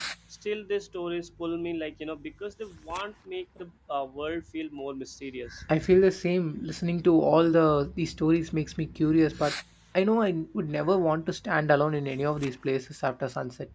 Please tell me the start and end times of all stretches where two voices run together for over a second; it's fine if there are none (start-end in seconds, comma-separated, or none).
none